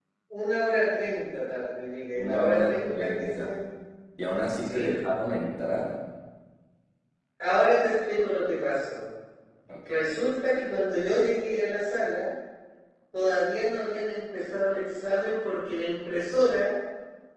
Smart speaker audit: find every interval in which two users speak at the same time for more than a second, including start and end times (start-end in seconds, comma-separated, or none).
2.2-3.5